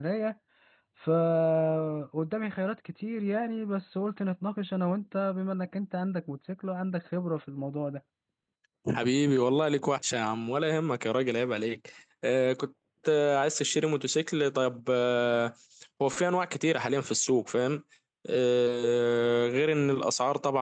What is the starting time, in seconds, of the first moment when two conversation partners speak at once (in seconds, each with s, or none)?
none